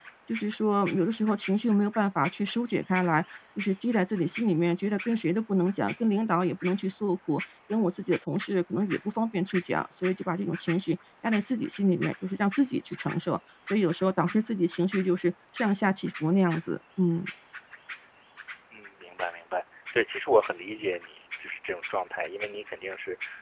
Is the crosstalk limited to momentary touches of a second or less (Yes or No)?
Yes